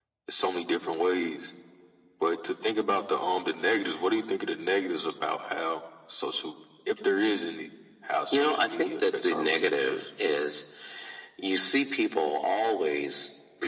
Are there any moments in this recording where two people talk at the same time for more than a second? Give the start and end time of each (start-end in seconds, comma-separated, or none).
8.3-10.0